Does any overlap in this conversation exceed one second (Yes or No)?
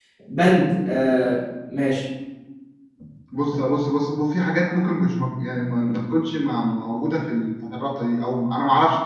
No